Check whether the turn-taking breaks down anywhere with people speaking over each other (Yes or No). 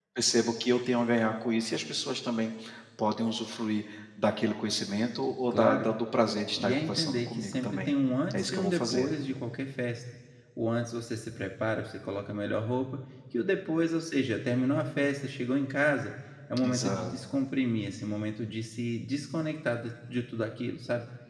Yes